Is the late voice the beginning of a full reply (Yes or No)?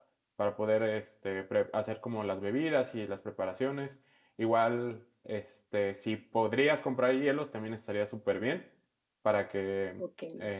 Yes